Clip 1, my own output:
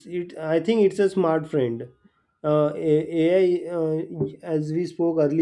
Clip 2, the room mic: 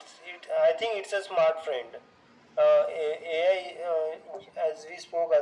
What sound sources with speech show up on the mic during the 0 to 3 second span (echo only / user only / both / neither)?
echo only